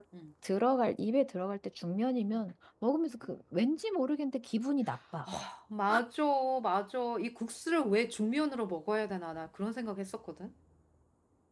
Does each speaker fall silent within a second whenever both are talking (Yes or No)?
Yes